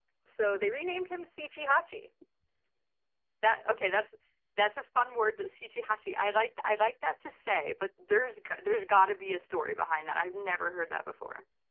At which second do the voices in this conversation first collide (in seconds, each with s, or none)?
none